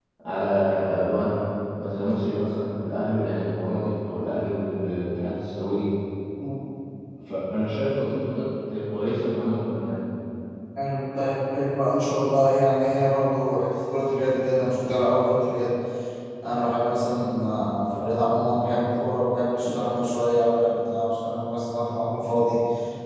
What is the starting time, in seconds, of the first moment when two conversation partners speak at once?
none

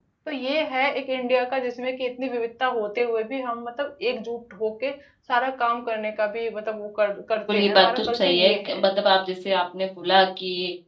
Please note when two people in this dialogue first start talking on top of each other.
7.5 s

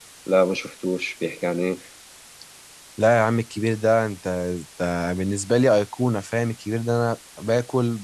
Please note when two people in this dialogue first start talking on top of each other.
none

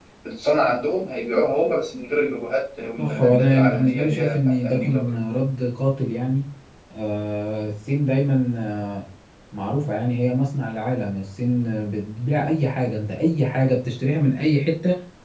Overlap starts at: 3.0 s

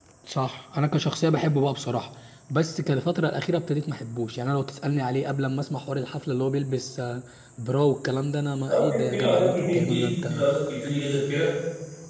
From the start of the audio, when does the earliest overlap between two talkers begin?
8.7 s

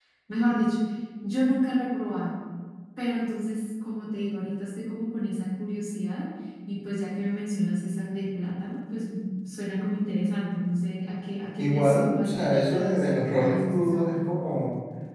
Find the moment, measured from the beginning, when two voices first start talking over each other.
11.6 s

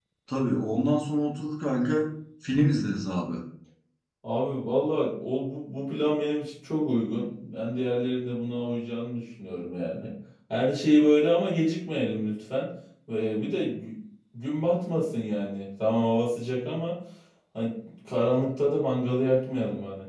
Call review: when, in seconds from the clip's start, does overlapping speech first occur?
none

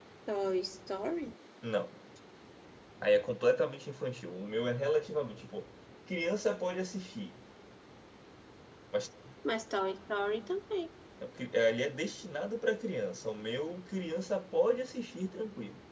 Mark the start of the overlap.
none

